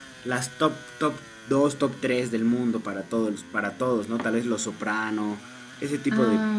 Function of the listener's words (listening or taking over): listening